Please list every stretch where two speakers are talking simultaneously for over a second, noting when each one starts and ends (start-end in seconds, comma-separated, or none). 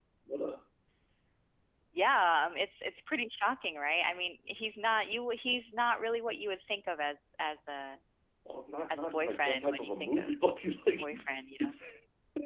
8.9-10.3